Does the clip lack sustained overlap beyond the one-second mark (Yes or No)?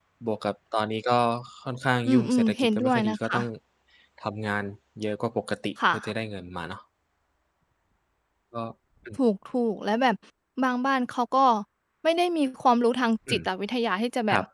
No